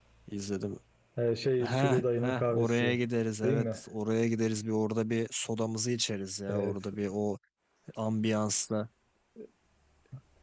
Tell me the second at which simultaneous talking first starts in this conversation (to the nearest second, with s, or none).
2 s